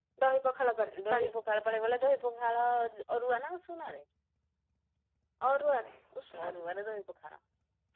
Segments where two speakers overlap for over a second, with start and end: none

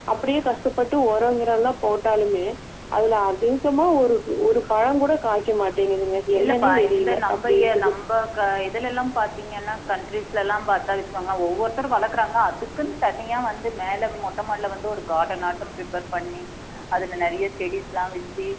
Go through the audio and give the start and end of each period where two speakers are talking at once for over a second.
6.4-7.9

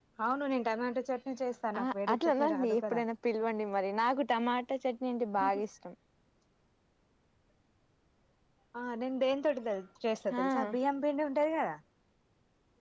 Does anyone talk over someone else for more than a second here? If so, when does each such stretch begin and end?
1.8-3.0

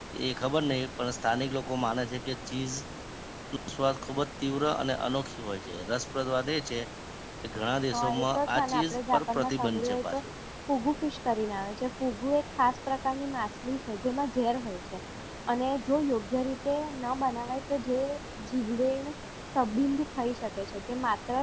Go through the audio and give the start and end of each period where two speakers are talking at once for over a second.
7.9-10.2

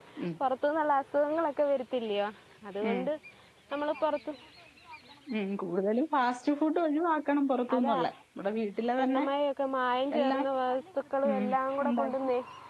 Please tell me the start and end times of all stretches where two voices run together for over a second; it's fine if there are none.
none

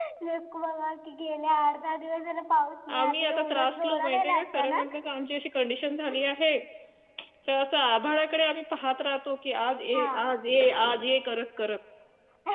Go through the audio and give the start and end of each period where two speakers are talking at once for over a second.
3.0-4.9

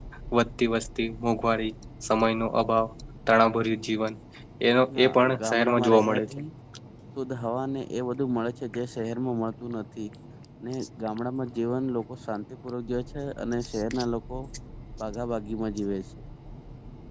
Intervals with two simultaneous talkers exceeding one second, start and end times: 5.0-6.4

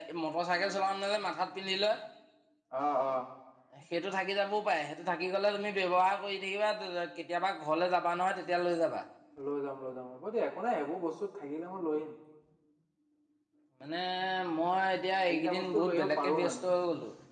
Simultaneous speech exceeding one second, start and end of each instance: 15.3-16.6

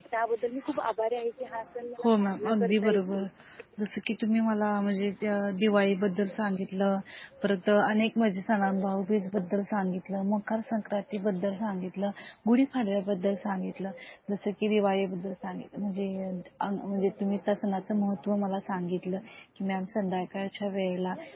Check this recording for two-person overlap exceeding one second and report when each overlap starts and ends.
2.0-3.2

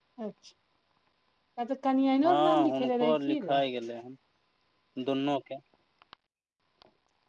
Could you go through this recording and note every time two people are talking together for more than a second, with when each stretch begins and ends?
2.3-3.6

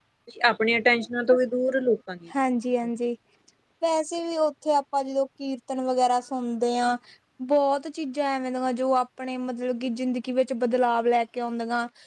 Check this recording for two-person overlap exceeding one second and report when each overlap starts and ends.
none

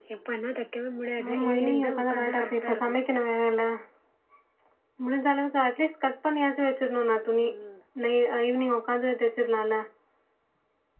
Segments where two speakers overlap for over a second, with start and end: 1.3-3.0

